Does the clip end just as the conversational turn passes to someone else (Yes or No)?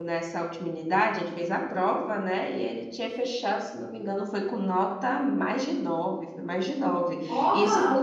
No